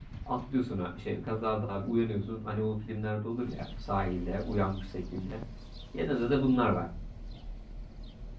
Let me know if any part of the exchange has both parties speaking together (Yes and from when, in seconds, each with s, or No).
No